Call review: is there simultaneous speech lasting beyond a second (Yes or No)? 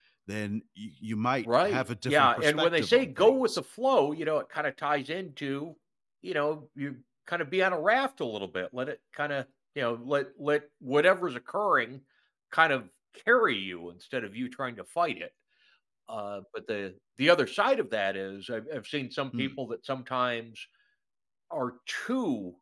Yes